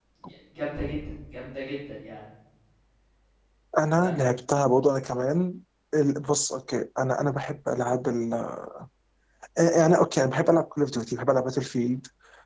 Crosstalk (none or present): none